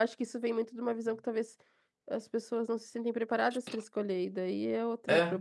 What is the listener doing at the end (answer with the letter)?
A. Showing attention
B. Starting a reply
B